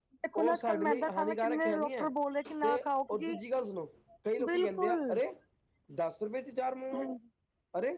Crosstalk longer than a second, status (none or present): present